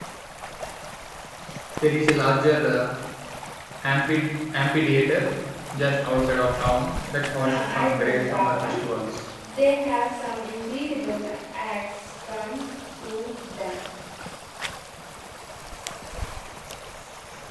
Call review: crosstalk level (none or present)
present